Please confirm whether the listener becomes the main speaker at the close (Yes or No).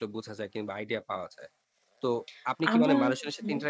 No